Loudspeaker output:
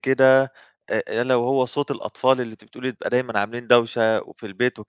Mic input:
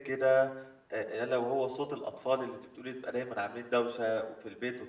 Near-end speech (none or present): none